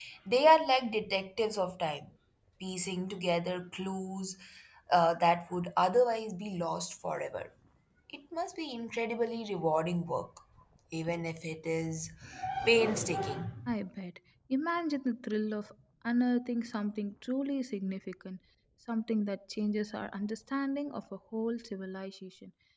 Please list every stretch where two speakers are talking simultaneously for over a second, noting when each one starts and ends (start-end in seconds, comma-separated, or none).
none